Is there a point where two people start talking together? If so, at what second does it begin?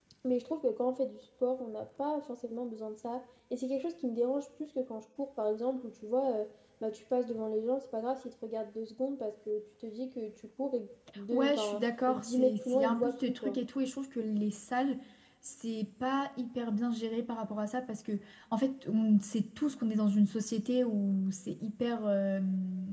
11.3 s

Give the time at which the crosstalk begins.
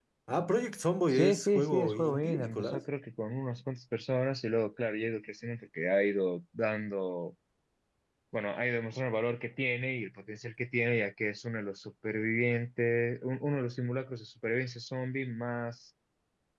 1.1 s

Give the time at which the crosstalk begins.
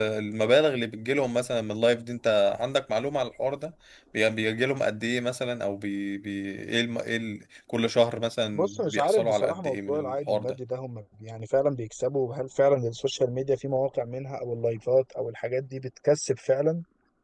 8.6 s

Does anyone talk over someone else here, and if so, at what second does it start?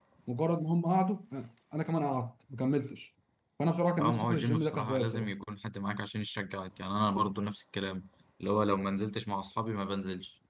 4.0 s

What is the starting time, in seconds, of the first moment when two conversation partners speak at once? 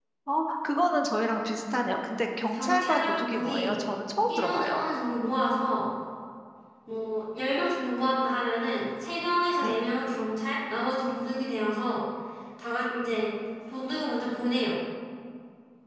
2.5 s

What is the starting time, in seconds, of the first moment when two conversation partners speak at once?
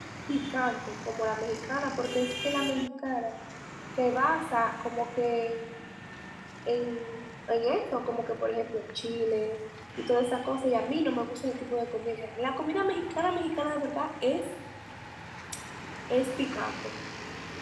none

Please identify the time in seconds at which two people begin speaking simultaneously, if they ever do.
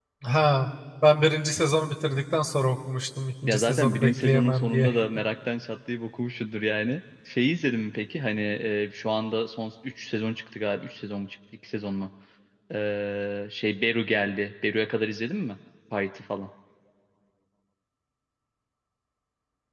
3.4 s

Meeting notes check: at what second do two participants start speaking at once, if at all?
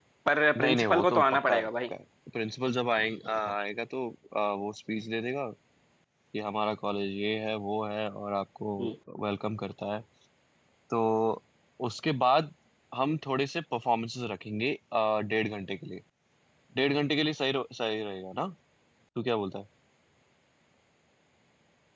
0.6 s

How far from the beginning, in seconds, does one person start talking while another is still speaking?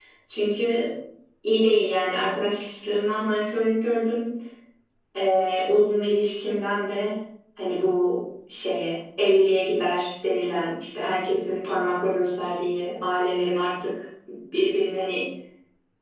none

